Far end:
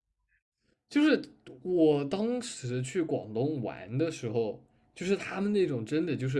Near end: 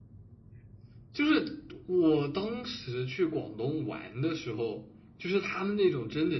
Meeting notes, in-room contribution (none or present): none